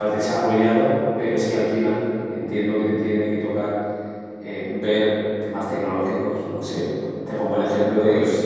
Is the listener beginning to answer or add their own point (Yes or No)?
No